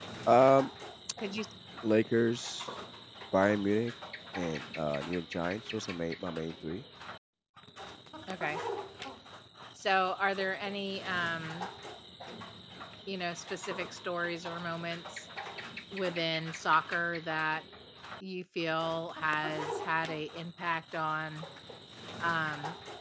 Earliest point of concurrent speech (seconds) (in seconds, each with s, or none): none